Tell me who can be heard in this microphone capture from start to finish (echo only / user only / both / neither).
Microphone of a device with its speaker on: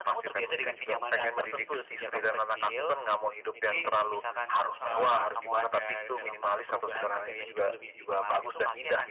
echo only